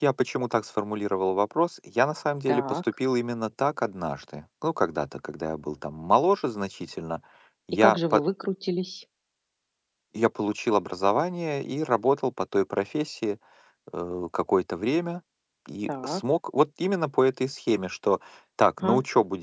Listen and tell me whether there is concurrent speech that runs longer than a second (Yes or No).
No